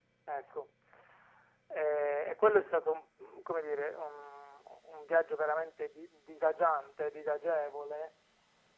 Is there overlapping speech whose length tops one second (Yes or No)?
No